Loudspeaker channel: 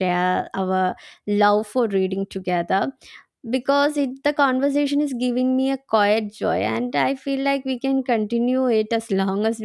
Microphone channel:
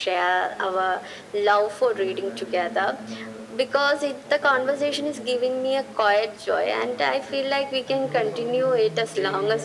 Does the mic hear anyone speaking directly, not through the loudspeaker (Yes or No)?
Yes